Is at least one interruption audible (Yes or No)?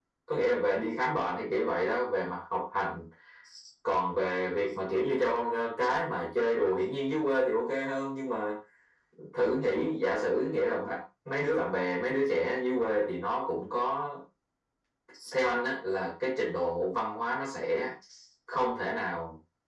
No